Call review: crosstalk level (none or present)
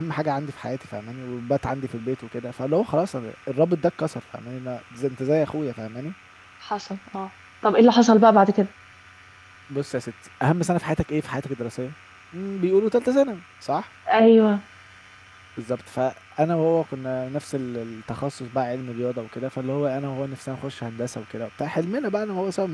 none